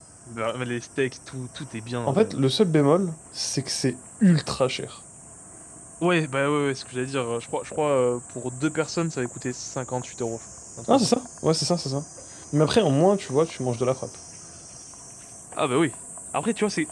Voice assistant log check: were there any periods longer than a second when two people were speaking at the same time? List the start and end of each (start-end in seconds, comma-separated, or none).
none